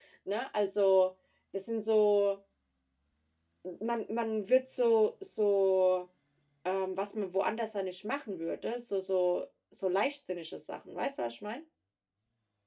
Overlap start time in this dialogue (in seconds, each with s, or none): none